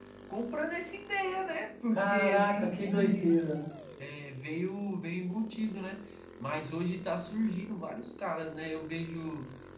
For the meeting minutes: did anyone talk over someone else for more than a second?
Yes, from 2.0 s

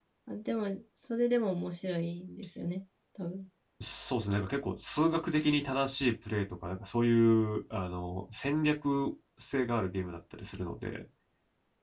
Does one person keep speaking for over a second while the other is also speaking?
No

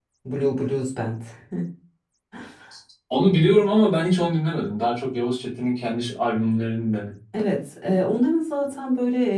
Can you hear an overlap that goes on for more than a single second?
No

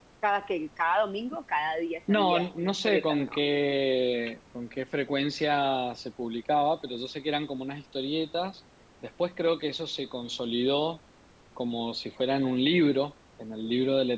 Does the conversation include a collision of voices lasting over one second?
Yes, from 2.1 s

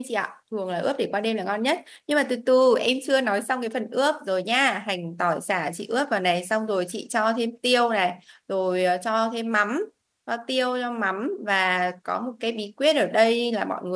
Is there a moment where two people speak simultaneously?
No

